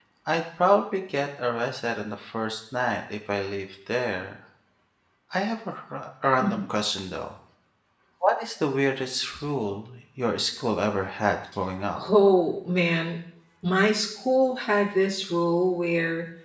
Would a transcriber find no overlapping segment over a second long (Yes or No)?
Yes